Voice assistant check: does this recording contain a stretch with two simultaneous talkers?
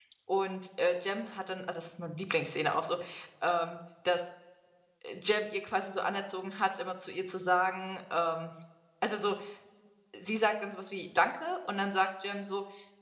No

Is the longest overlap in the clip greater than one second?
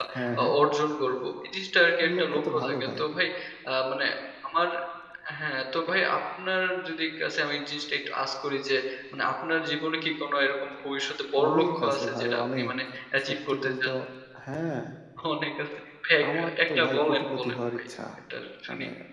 Yes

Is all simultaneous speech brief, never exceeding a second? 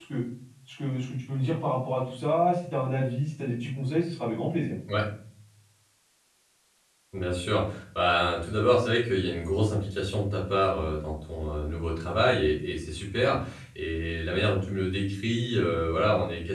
Yes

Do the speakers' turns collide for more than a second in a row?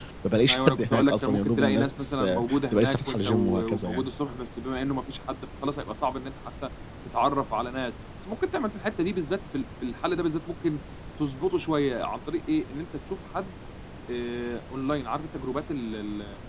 Yes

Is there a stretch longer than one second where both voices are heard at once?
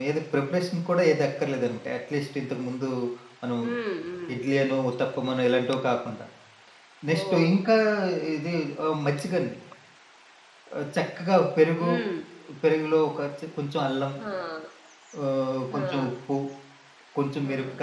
No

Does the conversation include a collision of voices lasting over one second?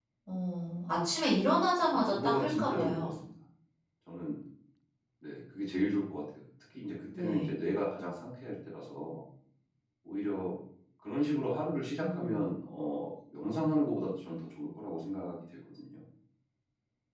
Yes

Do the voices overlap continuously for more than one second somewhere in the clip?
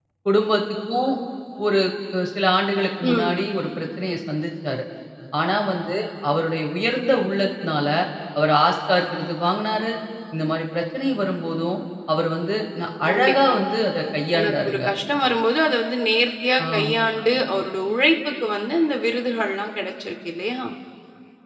No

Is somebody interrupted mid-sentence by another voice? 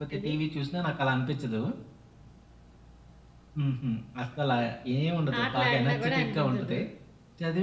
Yes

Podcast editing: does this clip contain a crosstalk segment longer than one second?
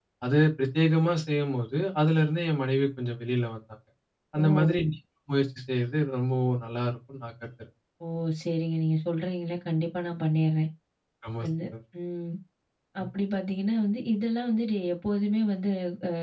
No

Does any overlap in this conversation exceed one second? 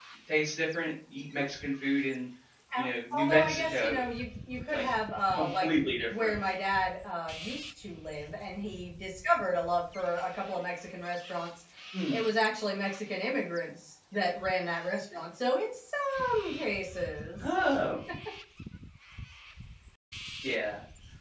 Yes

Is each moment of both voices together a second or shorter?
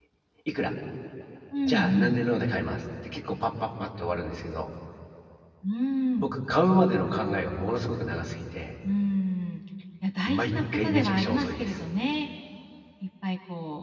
No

